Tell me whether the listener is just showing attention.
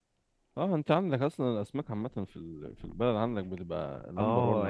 No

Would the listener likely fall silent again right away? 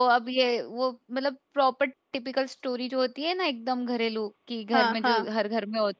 Yes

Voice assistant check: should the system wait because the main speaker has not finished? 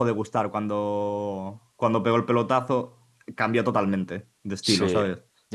No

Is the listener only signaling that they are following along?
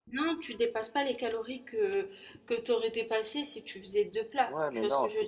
No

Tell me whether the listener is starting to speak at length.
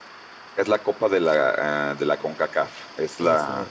No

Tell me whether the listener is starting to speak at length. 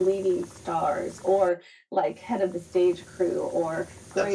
No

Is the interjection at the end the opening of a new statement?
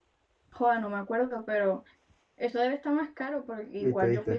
Yes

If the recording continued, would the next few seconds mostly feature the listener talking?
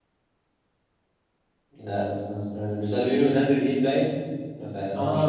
Yes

